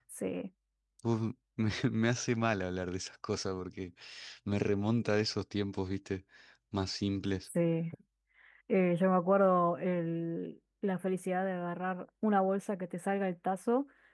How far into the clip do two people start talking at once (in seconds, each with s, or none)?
none